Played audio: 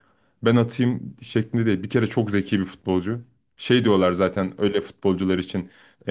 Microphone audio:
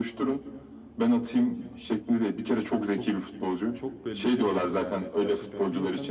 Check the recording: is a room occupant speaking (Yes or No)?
Yes